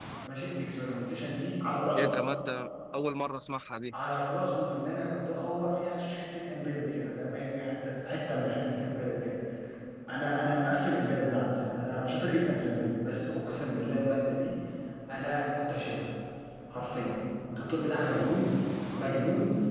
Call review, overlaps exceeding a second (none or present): none